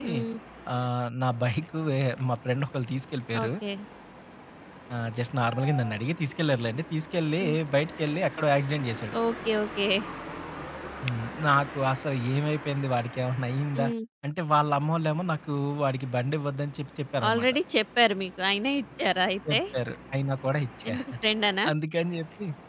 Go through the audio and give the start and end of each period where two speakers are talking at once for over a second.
none

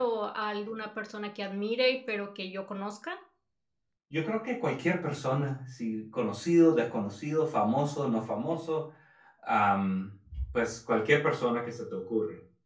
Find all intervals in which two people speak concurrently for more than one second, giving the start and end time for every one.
none

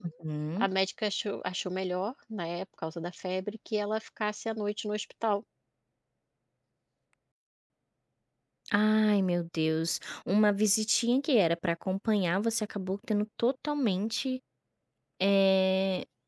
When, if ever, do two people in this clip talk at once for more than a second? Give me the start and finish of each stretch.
none

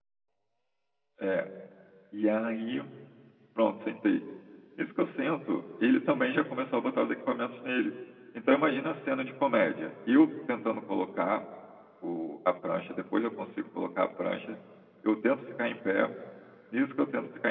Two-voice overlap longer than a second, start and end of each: none

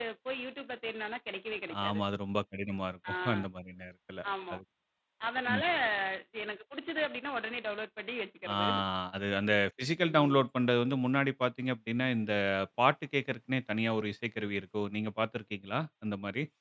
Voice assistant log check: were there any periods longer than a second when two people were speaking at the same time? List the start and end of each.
none

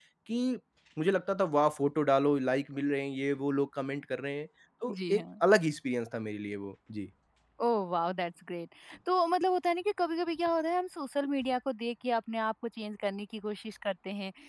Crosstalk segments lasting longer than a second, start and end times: none

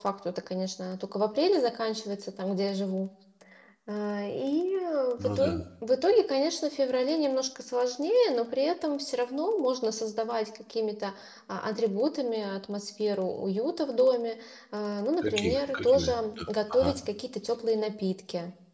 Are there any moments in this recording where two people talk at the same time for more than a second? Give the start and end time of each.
15.2-17.0

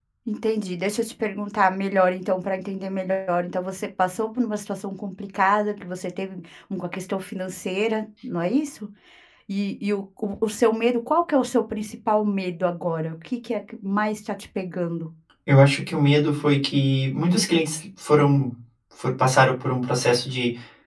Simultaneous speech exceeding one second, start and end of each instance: none

